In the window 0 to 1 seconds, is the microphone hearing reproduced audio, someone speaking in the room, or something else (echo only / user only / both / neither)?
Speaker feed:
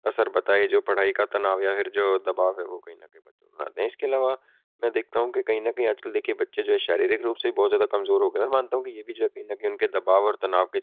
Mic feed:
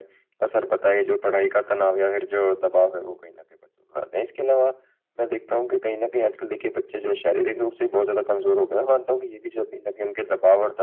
echo only